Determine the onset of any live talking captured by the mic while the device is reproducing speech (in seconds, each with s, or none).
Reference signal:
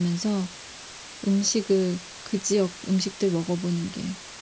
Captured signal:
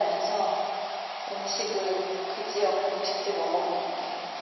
none